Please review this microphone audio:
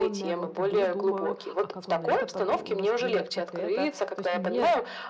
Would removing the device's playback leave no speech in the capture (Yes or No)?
No